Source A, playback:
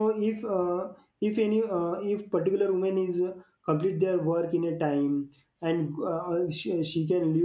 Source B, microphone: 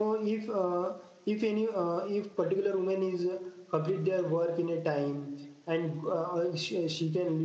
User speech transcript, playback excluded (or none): none